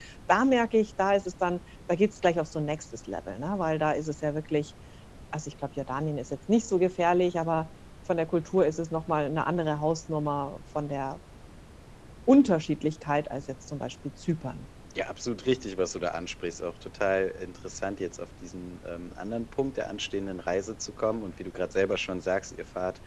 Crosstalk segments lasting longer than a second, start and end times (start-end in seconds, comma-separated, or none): none